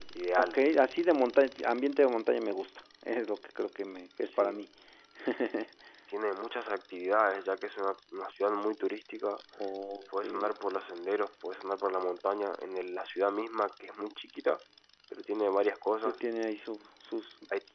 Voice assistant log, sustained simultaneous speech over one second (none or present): none